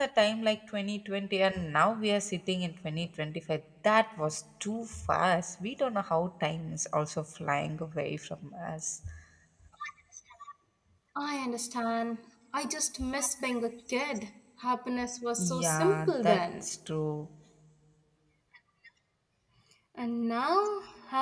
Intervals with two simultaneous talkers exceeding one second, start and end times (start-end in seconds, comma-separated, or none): 15.4-16.6